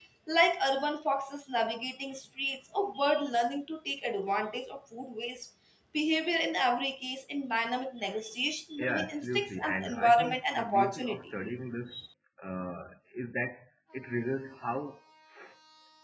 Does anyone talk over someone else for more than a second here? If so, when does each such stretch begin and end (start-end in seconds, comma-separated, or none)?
8.8-11.3